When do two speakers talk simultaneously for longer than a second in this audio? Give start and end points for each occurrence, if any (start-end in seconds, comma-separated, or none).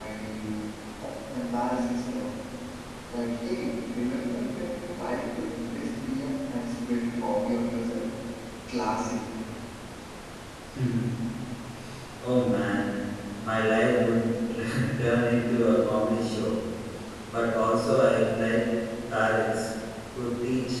none